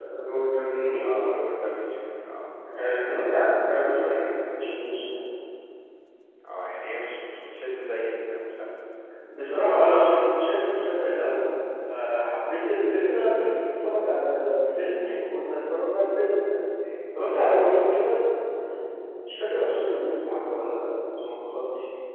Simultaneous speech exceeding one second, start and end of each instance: none

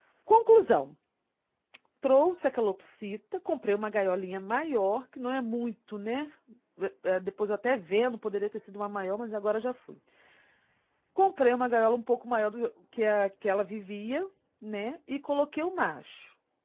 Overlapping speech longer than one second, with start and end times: none

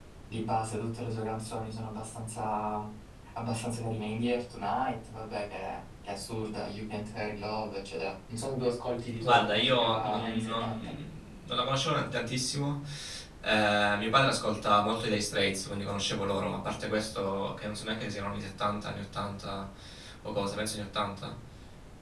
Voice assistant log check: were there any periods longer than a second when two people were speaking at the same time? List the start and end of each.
9.2-10.9

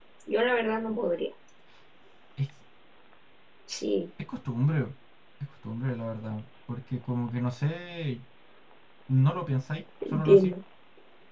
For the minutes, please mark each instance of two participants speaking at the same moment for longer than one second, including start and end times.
none

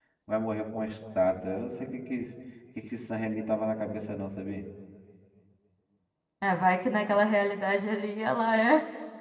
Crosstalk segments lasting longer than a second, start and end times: none

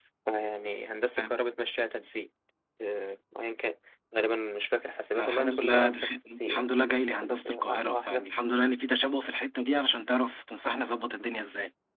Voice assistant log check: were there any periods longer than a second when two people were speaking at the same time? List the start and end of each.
5.2-8.3

